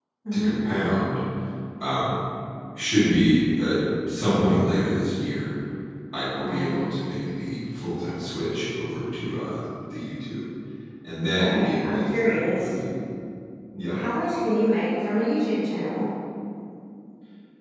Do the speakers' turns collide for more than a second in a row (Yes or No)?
Yes